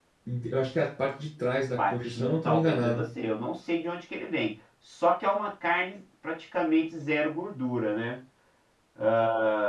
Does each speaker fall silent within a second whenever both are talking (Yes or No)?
No